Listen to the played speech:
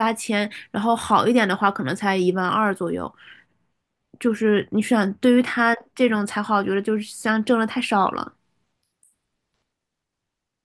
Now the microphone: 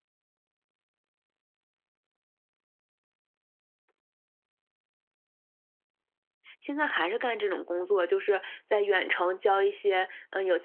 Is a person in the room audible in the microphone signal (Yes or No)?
Yes